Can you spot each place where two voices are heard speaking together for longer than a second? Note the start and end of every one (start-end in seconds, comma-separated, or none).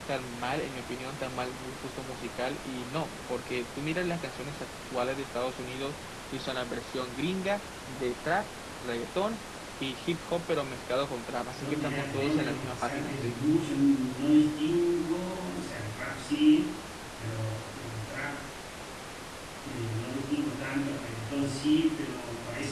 11.6-13.4